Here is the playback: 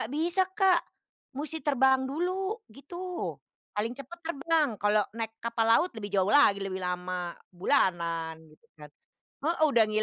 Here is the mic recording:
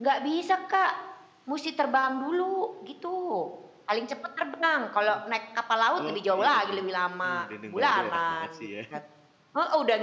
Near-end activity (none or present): present